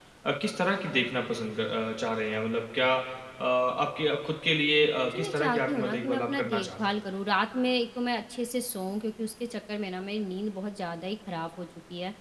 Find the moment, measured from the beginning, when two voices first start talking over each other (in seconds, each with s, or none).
5.1 s